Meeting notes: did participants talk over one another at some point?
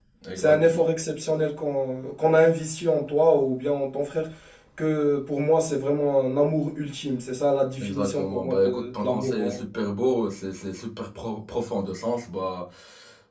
Yes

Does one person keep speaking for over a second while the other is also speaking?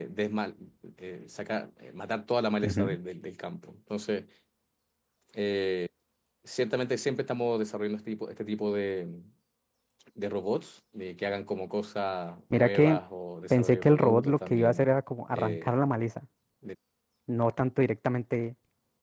Yes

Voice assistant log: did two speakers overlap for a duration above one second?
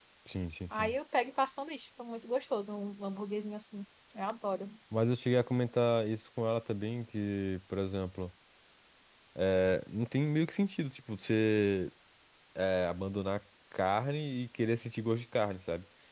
No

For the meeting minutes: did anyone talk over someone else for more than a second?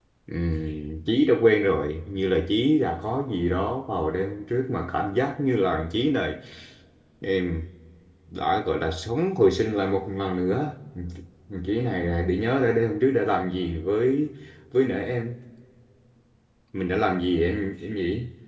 No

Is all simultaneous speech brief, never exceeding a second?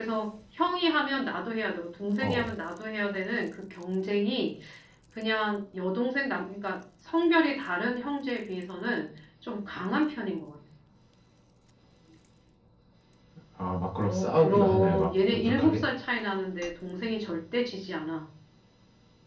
No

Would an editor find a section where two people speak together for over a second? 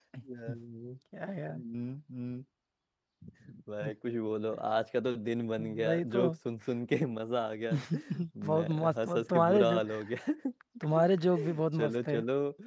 Yes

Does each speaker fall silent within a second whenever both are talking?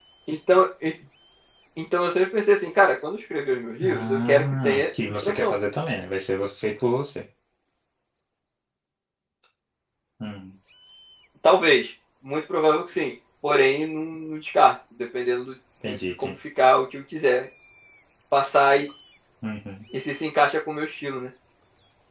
No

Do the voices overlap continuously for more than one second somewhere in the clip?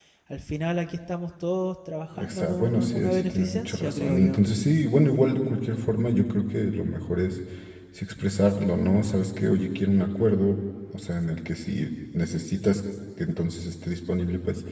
Yes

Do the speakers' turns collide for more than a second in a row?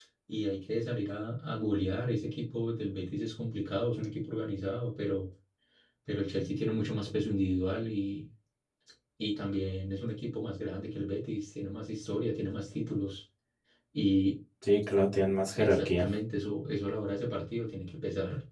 No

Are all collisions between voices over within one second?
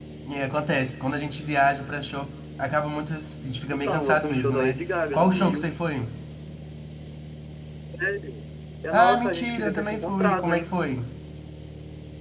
No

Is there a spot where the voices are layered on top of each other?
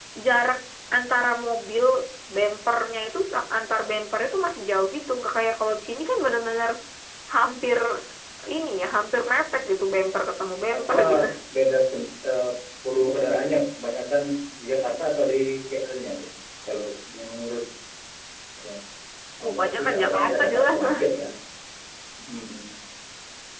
Yes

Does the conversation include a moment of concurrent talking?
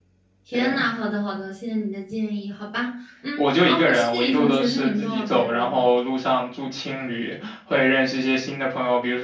Yes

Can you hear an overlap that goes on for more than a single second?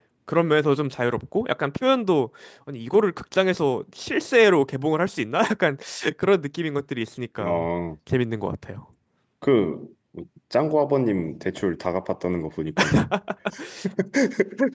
No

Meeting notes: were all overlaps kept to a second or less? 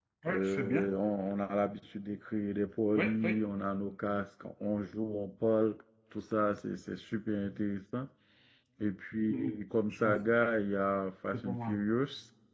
Yes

